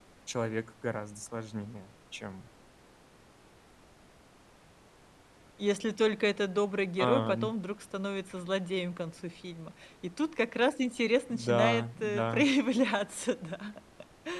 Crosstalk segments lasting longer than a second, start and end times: 11.3-12.5

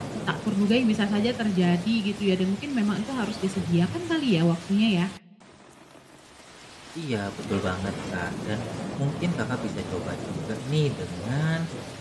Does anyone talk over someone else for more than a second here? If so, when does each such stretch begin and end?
none

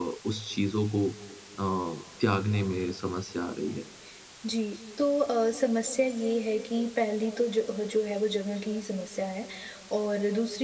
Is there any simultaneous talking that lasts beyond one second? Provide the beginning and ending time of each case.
none

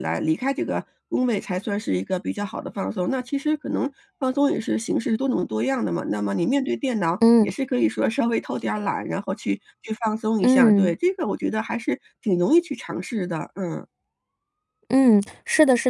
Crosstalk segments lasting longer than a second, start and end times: none

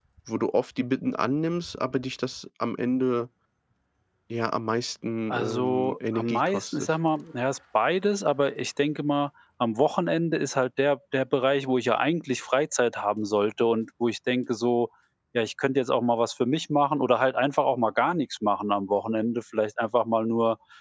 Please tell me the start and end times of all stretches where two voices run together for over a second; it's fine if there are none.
5.3-6.9

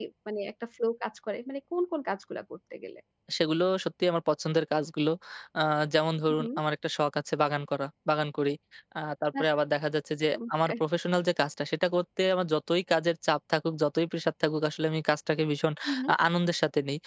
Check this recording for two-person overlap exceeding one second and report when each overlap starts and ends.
none

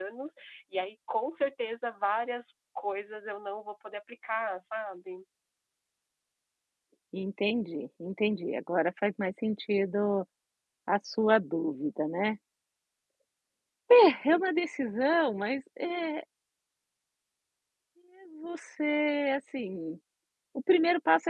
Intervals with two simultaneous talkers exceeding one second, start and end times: none

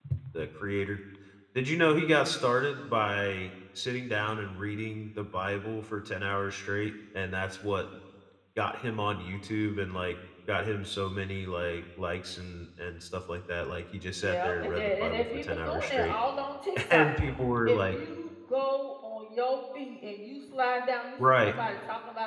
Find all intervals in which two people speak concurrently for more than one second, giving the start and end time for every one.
14.1-16.1

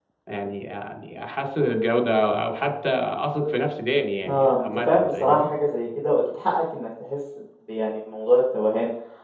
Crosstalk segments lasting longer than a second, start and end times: 4.2-5.5

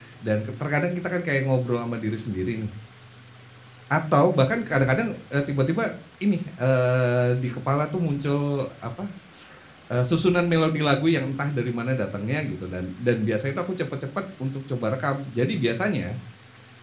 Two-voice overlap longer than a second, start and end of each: none

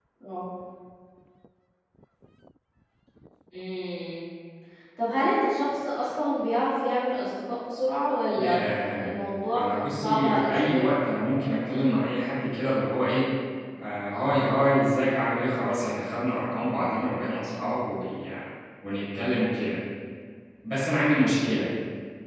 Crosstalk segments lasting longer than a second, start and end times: 9.5-10.9

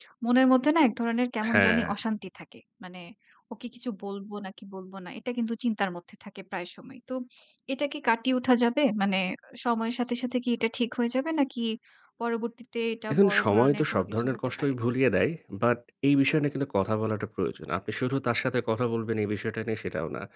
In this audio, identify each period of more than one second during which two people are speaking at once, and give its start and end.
13.1-14.7

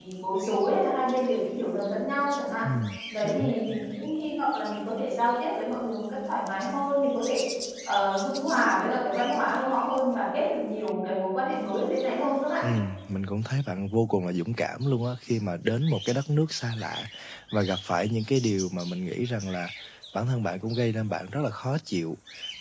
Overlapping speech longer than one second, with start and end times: none

